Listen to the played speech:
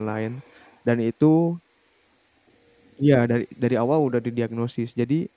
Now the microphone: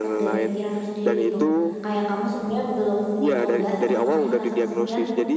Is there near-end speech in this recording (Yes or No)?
Yes